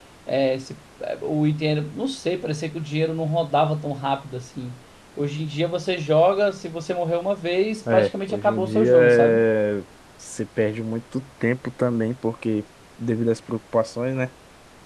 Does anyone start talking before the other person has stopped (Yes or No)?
Yes